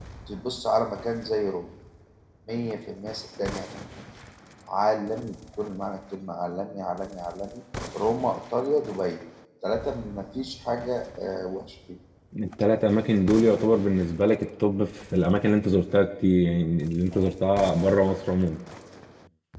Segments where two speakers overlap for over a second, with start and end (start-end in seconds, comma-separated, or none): none